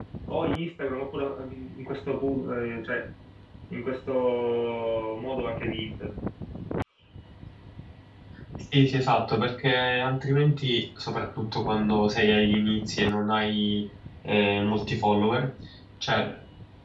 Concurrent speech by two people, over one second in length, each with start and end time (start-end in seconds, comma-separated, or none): none